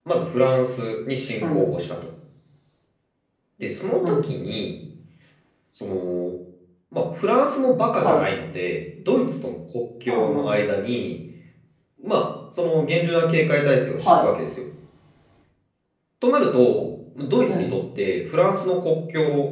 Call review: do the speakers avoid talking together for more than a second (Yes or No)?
Yes